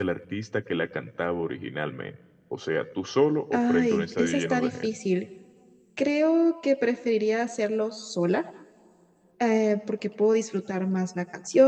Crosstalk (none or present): present